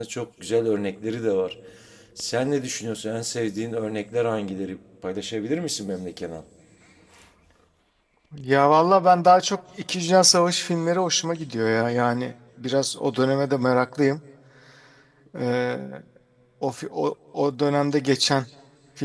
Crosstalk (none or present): none